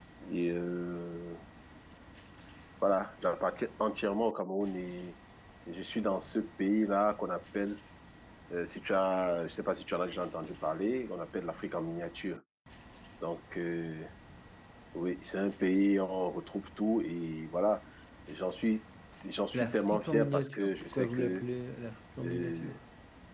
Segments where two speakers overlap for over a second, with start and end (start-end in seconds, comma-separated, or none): 19.5-21.4